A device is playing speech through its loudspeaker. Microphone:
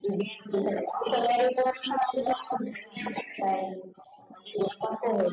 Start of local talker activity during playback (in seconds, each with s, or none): none